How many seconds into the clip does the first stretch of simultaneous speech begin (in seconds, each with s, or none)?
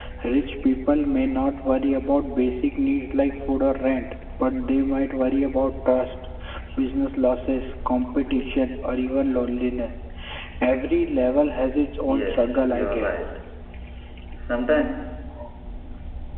12.0 s